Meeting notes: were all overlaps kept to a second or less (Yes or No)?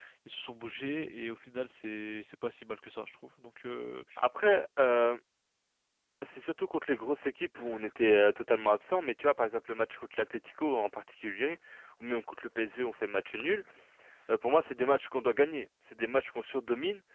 Yes